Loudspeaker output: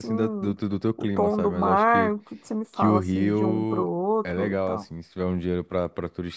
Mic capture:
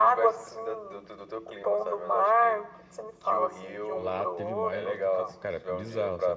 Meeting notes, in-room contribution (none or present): present